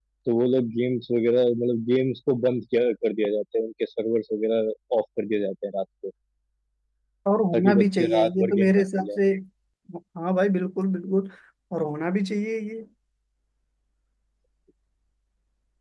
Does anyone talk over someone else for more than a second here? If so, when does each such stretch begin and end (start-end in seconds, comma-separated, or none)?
7.5-9.2